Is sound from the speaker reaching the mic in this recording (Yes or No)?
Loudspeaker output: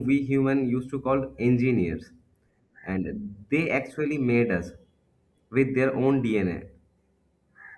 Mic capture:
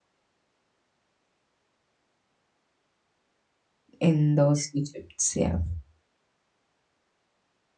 No